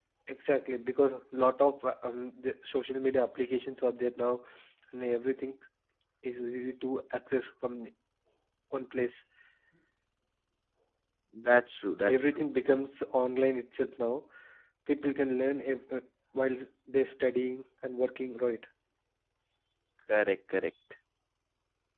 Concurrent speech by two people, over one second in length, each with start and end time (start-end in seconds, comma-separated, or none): none